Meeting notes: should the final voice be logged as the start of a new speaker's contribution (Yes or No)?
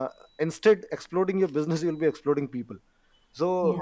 No